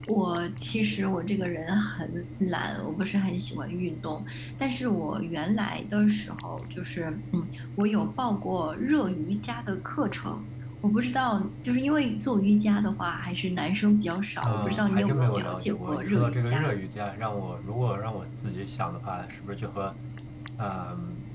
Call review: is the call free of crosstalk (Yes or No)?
No